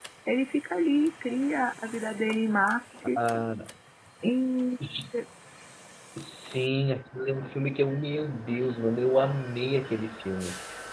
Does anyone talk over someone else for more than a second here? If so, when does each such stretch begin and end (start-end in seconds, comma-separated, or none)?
none